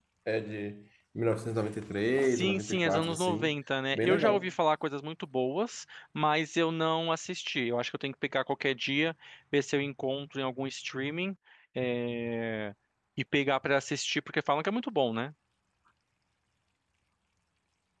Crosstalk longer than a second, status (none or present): present